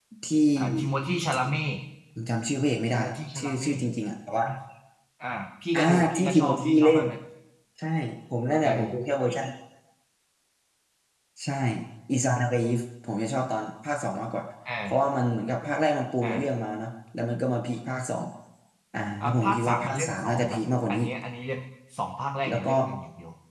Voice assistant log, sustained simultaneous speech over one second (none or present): present